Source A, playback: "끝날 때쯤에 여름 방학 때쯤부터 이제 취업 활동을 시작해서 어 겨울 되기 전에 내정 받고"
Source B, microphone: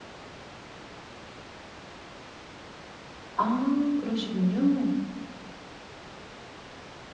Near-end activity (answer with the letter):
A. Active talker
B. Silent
A